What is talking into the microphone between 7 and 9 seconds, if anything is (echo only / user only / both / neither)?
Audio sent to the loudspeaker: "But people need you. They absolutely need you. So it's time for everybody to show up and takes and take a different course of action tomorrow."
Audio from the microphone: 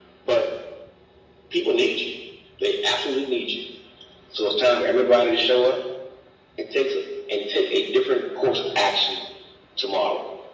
echo only